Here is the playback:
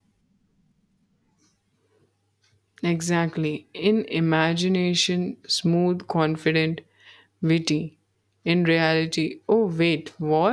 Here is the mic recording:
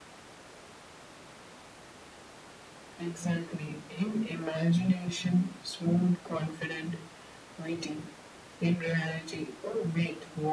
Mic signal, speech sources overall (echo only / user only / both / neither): echo only